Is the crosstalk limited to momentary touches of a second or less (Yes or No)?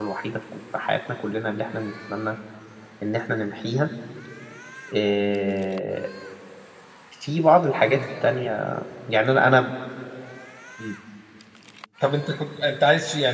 Yes